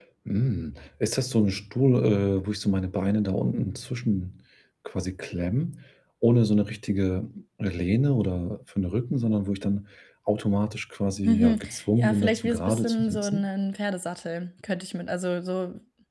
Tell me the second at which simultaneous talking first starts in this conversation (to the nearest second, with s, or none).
11 s